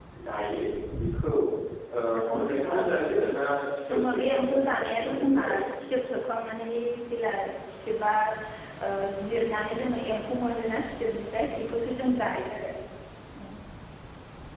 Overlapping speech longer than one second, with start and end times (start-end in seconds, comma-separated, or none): 3.9-5.5